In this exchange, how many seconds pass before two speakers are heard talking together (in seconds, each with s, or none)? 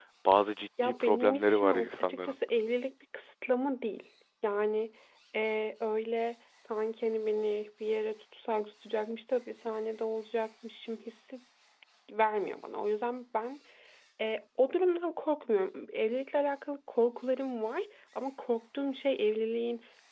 0.8 s